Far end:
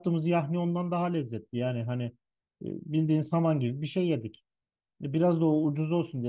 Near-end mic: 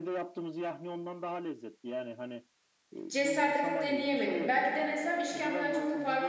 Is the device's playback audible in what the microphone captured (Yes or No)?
Yes